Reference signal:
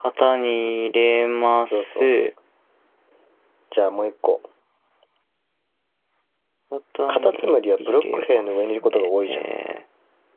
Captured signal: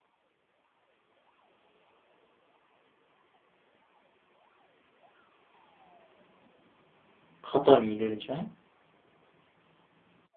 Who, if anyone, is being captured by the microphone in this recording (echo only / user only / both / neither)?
user only